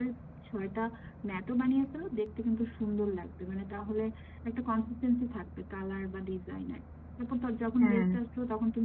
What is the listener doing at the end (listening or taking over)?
listening